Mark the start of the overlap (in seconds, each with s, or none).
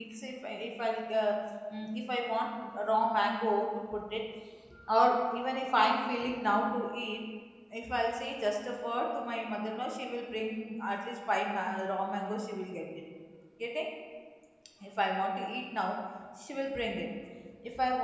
none